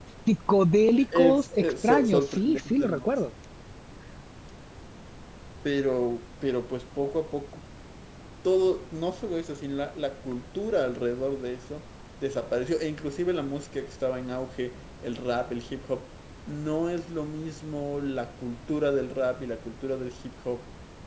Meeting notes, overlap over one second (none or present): present